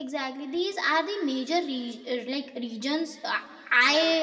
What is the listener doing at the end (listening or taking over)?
listening